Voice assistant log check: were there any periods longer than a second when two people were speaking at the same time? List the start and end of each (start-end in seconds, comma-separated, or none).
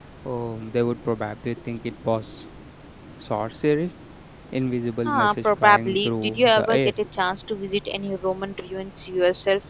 5.0-6.8